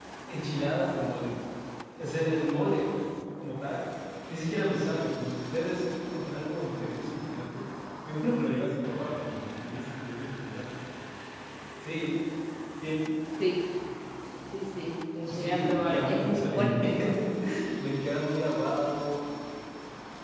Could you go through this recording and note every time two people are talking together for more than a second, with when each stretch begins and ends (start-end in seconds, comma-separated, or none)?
15.3-17.0